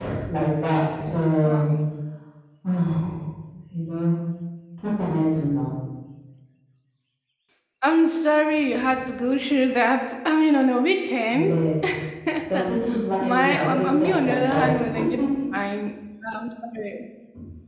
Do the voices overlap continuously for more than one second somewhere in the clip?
Yes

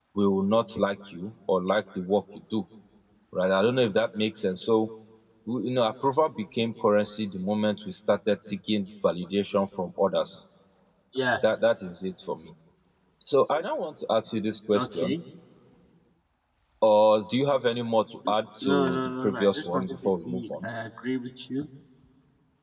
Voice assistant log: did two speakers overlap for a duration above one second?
Yes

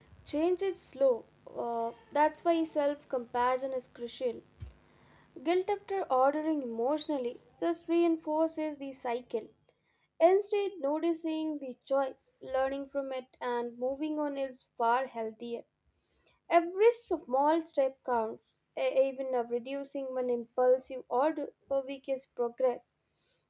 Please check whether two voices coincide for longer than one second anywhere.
No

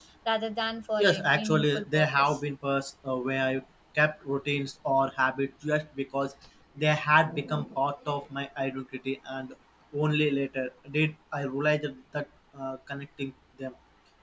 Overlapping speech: Yes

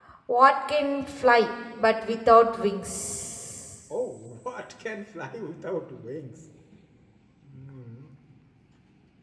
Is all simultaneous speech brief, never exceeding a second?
Yes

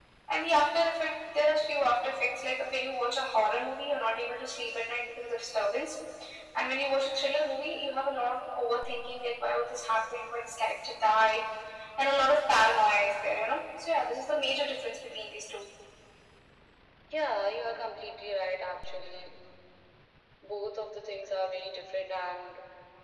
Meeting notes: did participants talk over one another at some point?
No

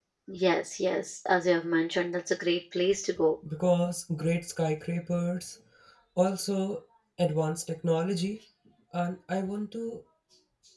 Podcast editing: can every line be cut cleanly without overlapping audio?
Yes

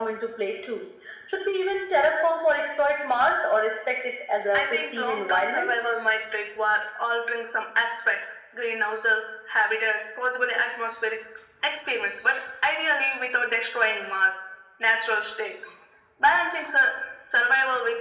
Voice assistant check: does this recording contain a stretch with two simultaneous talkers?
Yes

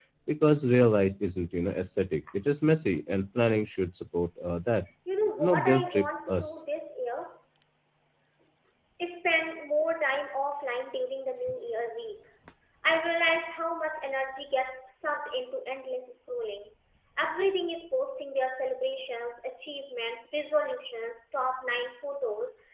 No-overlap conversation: No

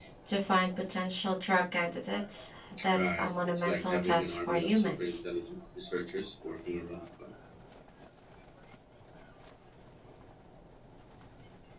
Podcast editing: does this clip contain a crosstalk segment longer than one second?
Yes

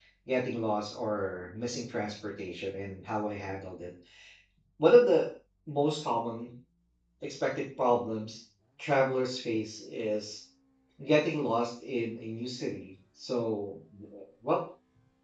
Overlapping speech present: No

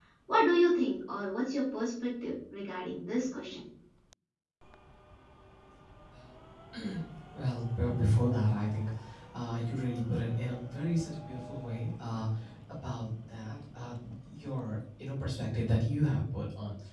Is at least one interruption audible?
No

